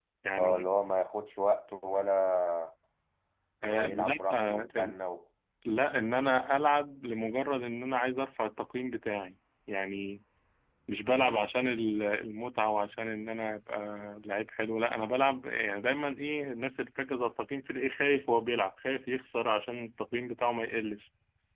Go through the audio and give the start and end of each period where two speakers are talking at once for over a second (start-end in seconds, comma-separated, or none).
3.7-5.0